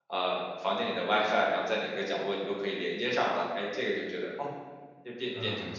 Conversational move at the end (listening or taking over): taking over